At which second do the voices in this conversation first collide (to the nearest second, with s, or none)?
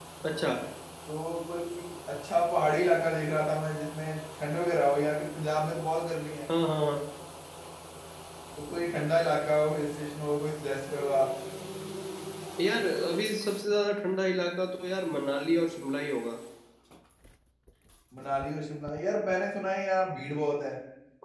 none